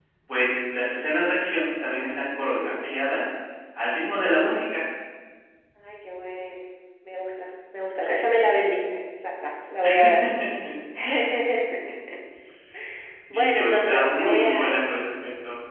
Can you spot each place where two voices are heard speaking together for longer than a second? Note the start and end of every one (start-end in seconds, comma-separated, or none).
13.3-14.8